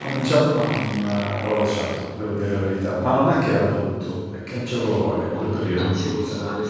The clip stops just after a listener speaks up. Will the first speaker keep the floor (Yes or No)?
No